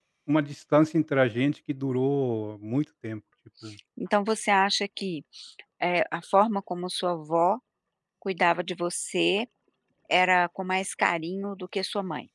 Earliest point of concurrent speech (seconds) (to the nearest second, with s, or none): none